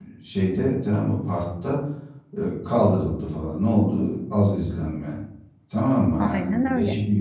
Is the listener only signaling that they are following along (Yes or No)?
Yes